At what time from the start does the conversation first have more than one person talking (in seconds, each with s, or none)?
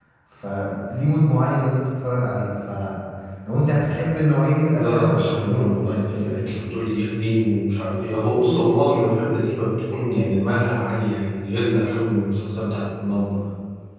4.8 s